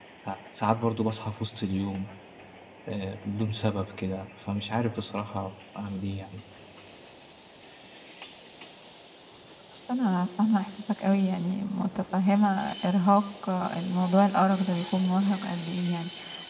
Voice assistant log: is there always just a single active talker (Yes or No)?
Yes